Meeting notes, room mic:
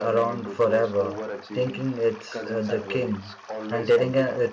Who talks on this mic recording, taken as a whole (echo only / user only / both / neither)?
both